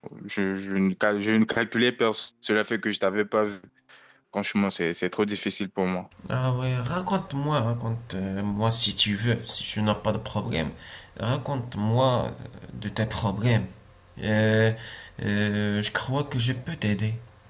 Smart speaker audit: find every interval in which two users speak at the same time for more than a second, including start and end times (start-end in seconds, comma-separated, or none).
none